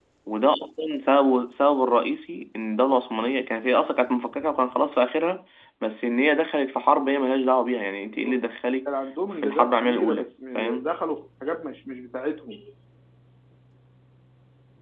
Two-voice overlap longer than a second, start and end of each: 9.4-10.9

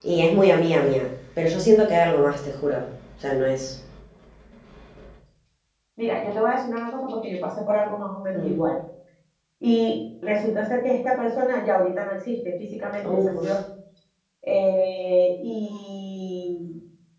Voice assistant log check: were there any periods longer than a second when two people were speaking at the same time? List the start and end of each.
none

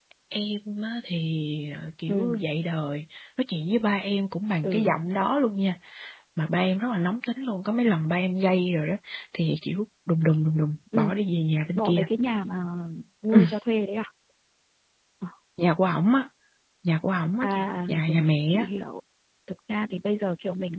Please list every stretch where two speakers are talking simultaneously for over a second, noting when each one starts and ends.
17.4-18.7

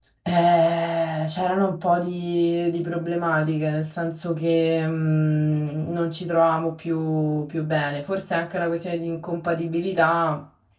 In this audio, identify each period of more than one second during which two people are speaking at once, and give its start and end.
none

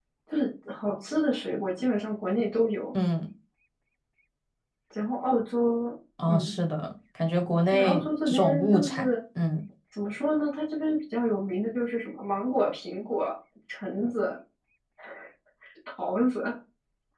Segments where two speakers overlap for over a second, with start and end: 7.7-9.0

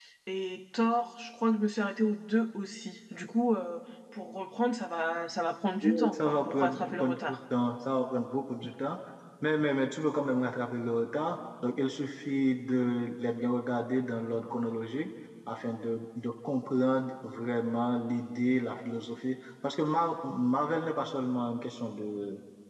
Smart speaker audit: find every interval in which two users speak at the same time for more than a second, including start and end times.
5.8-7.4

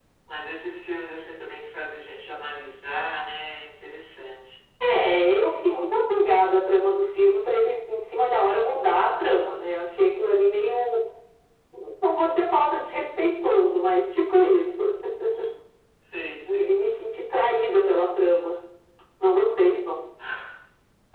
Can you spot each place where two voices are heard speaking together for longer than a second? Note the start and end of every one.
none

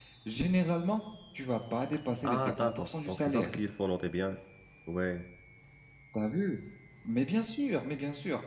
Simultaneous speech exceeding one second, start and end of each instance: 2.2-3.5

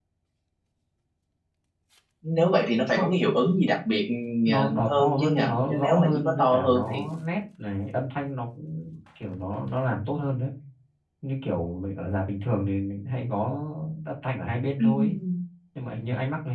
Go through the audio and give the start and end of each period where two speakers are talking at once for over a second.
4.6-7.0

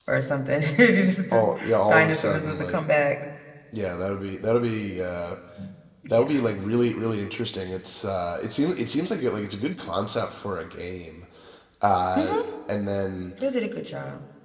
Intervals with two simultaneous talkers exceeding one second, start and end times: 1.3-2.8

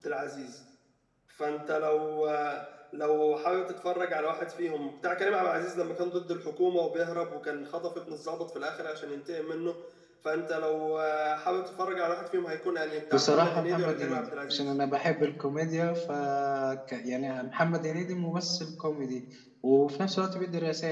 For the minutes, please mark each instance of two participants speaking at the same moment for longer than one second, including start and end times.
13.1-14.7

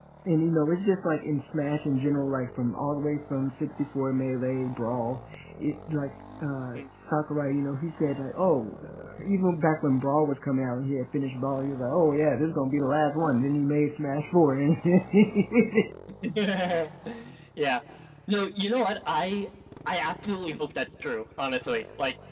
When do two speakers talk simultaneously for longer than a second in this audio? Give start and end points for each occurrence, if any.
none

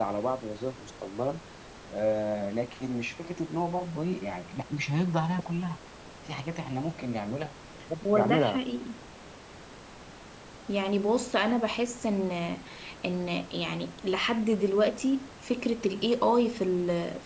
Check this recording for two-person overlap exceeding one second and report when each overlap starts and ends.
none

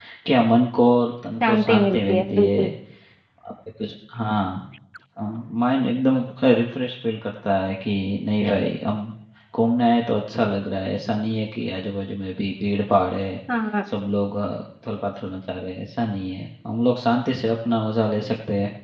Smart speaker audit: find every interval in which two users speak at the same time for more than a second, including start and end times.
1.4-2.7

